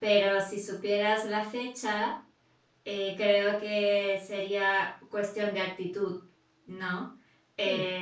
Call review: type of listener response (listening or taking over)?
listening